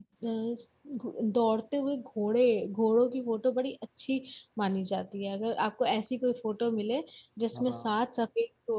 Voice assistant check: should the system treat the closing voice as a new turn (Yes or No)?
No